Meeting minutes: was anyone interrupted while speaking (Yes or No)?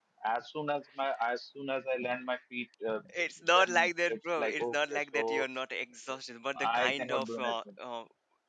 Yes